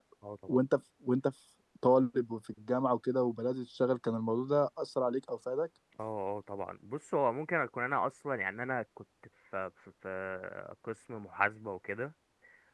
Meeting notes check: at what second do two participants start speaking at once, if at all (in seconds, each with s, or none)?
none